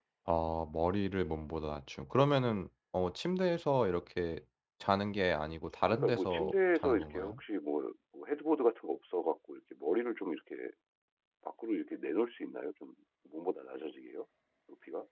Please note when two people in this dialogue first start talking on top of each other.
5.9 s

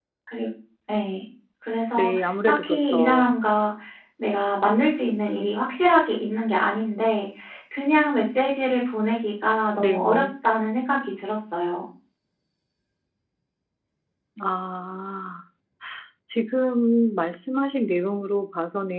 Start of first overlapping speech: 2.0 s

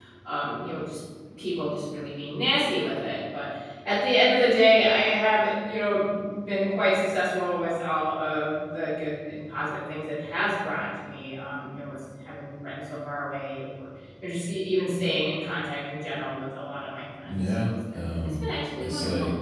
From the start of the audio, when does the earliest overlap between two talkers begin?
17.3 s

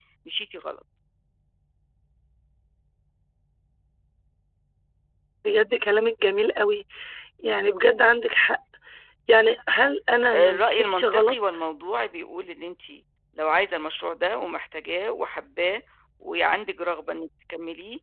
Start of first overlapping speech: 10.3 s

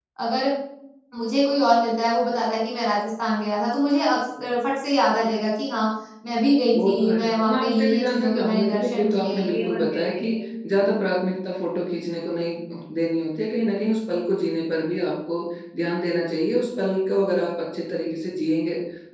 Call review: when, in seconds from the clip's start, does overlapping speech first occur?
6.7 s

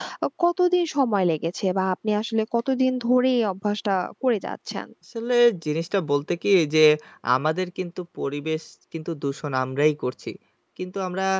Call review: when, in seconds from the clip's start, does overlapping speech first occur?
none

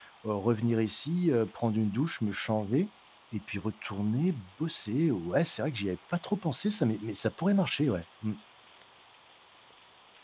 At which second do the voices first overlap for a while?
none

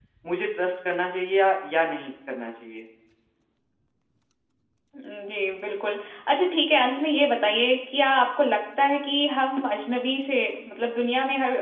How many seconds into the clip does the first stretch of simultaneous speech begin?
none

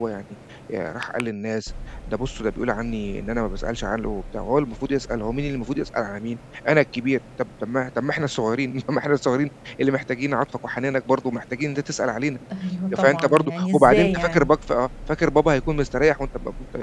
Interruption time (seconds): 13.0 s

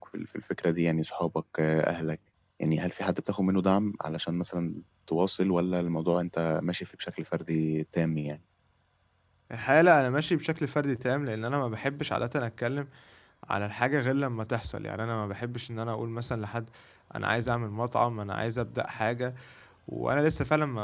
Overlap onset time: none

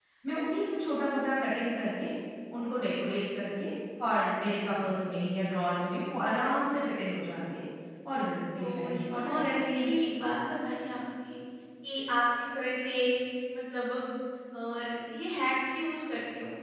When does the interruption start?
8.5 s

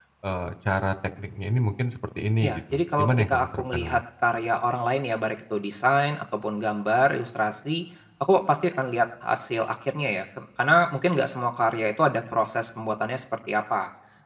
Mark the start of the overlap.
2.4 s

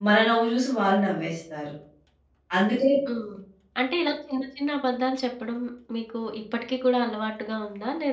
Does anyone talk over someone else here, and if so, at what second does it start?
none

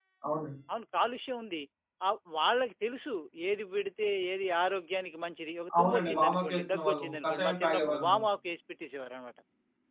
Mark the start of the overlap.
5.7 s

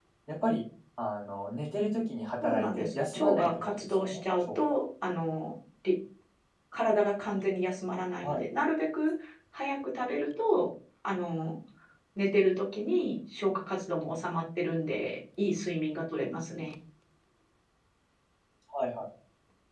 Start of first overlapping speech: 2.4 s

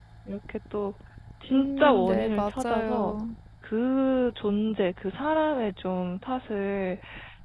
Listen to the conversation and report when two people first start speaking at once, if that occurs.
1.5 s

